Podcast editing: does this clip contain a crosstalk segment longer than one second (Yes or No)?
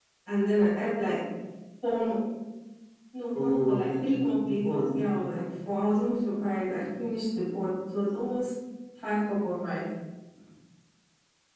Yes